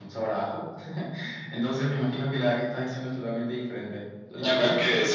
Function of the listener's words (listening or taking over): taking over